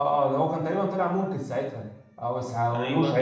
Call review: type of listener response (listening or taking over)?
taking over